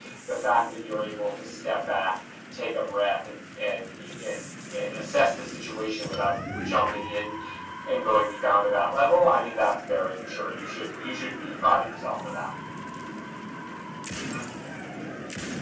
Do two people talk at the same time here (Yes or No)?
No